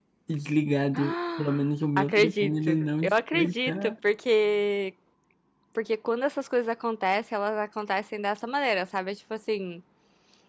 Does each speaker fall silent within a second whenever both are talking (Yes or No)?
No